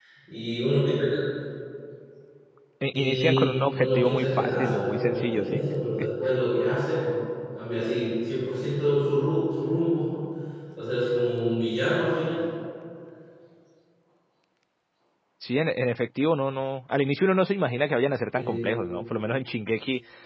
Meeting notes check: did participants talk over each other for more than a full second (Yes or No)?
Yes